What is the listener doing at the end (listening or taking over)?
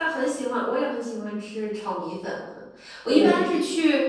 listening